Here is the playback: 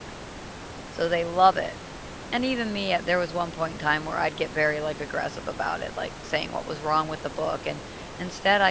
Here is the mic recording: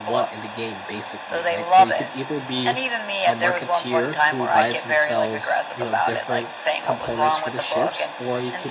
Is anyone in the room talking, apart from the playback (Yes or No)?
Yes